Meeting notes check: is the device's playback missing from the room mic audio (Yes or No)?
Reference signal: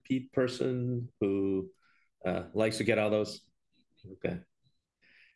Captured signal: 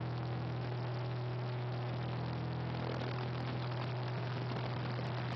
Yes